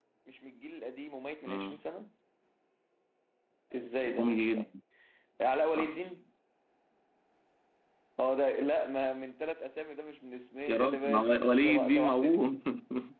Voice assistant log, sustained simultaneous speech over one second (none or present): present